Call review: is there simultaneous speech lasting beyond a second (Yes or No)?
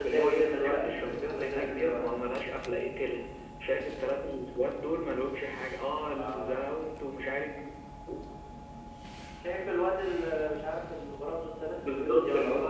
Yes